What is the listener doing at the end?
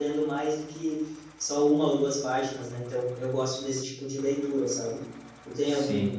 listening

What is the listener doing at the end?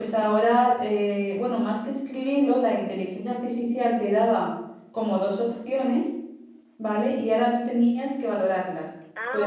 listening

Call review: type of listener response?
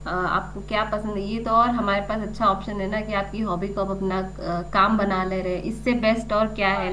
taking over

